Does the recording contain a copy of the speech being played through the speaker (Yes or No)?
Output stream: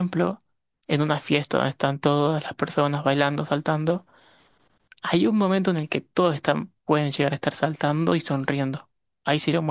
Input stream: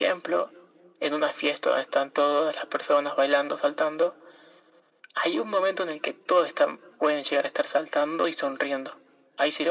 Yes